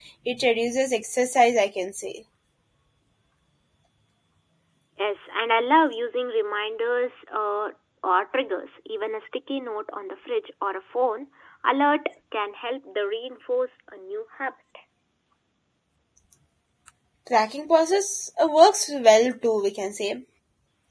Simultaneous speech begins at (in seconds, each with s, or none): none